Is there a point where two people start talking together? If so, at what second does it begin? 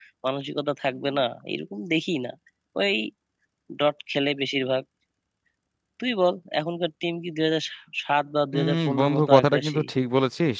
8.5 s

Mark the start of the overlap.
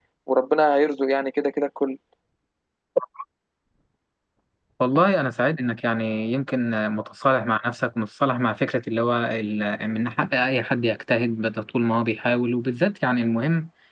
none

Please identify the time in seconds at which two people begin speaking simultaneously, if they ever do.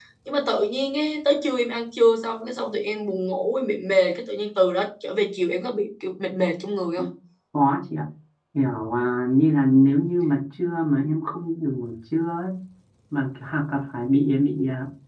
none

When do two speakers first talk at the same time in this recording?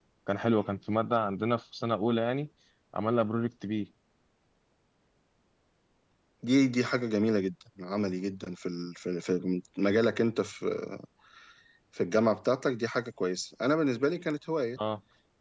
none

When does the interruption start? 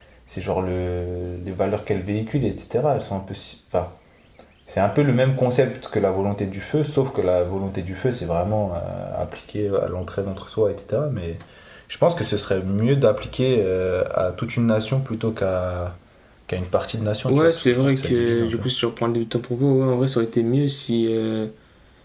17.3 s

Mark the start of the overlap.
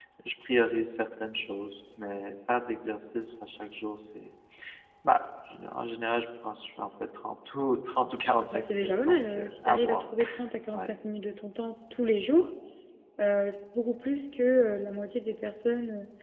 8.5 s

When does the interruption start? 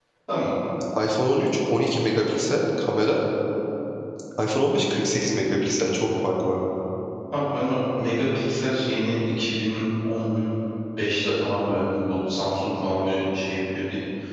none

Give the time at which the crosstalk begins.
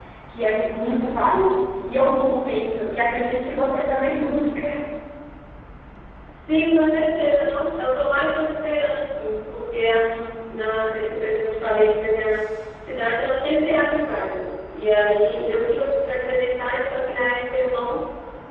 none

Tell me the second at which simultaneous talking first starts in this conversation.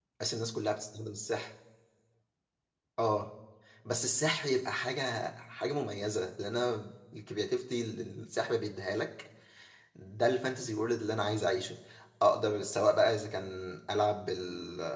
none

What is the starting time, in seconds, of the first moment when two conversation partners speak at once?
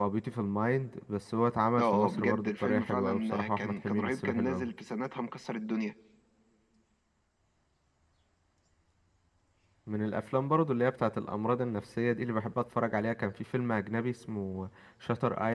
1.8 s

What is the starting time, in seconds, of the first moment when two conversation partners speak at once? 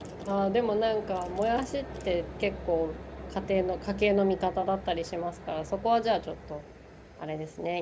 none

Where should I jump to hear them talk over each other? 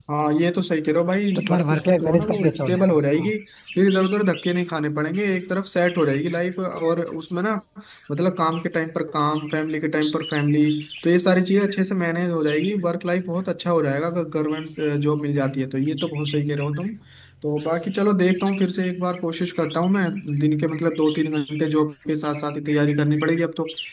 1.4 s

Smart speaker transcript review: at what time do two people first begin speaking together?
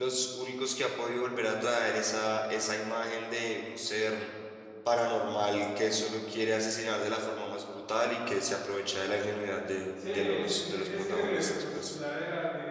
10.0 s

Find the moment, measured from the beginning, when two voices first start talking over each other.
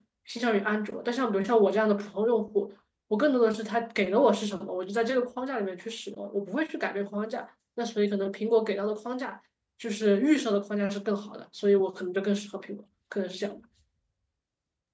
none

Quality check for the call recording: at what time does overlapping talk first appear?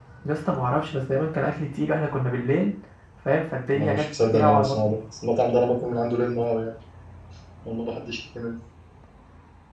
3.7 s

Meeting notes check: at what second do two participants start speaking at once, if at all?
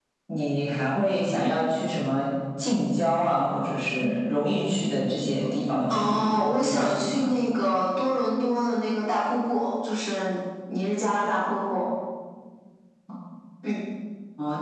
5.9 s

